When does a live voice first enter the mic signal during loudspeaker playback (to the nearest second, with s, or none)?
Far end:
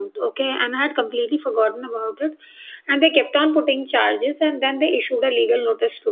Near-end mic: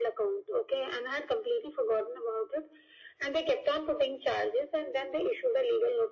none